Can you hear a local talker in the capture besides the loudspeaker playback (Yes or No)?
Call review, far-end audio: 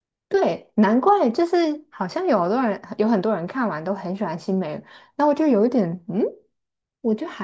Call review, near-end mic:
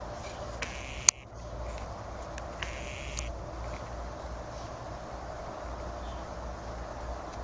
No